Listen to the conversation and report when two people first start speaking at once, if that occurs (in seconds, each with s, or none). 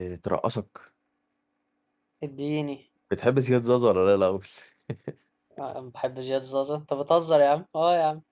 none